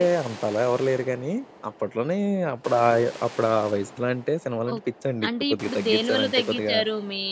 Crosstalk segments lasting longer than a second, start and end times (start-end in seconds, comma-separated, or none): 5.3-6.8